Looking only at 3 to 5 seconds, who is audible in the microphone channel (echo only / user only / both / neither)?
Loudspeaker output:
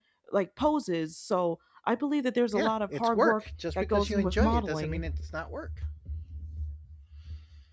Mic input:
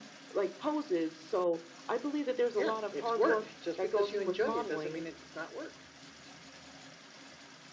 echo only